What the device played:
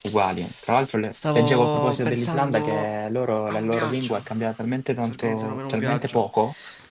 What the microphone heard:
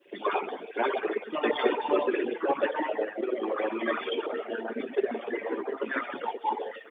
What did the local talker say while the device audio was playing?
none

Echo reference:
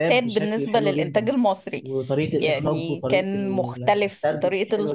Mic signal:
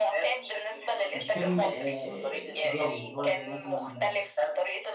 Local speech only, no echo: مش فيلم آه، تجاري اللي هو زي مثلا

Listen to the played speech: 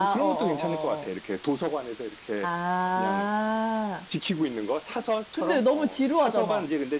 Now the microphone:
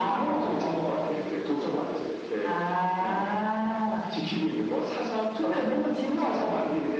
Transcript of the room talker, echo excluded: none

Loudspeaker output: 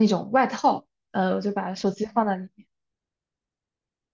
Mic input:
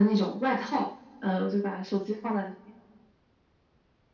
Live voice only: none

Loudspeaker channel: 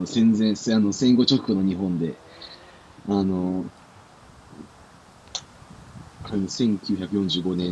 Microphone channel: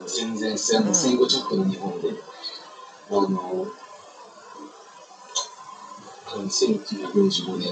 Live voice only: うん、

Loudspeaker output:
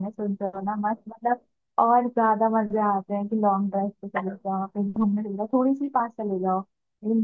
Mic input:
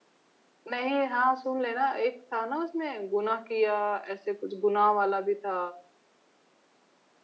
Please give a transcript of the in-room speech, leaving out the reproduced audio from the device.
नहीं हाँ सुन लेना एक था ना उसमें गुनाह किया ऐसे कुछ गुनाह वाला भी था

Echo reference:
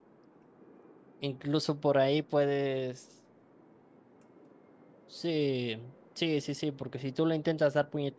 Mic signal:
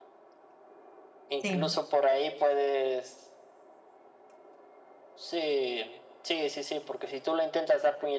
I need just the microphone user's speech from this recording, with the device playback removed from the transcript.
Sí.

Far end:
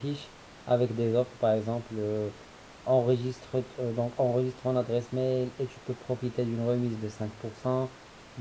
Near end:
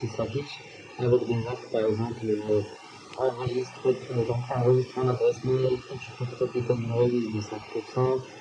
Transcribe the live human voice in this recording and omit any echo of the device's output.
none

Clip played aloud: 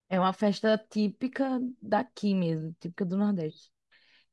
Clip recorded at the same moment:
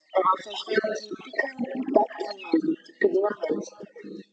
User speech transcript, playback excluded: none

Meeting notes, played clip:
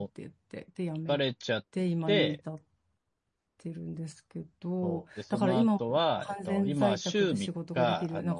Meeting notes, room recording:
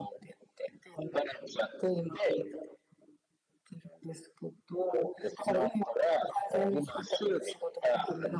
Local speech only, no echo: none

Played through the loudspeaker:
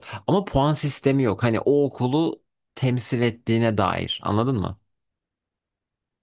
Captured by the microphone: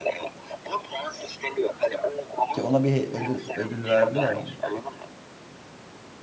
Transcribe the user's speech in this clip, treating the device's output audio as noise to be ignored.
Ki ona bir he- ödül, ödül verdiler mi?

